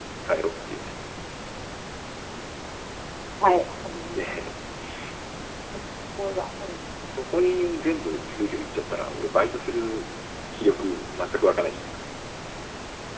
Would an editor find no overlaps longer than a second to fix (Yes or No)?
Yes